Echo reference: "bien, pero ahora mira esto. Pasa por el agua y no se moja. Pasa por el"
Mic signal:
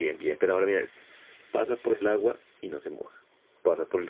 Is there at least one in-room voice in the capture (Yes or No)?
No